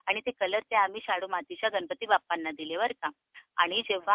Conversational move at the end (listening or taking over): listening